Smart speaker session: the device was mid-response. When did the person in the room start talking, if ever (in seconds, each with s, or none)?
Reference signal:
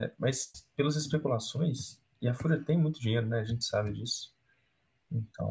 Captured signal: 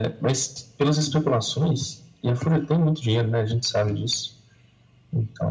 none